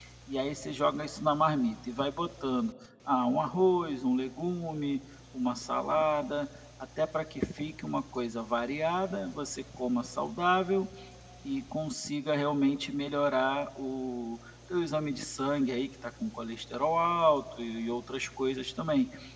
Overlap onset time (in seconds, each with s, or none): none